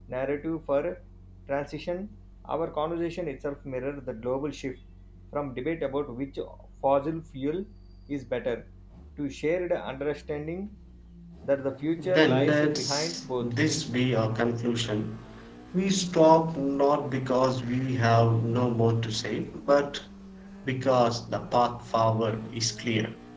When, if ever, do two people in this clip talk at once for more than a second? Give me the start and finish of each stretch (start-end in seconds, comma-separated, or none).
12.0-13.5